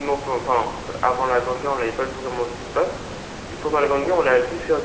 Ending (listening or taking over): listening